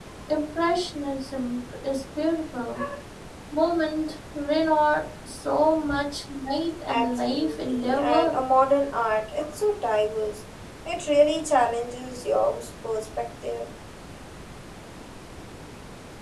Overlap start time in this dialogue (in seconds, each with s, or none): 6.9 s